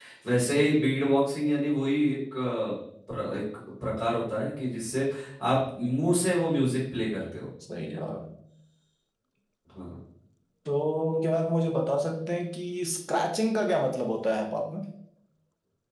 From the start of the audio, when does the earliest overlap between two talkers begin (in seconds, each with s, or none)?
none